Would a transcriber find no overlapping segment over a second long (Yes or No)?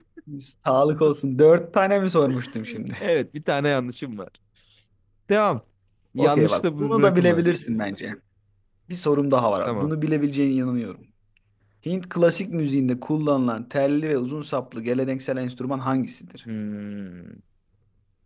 No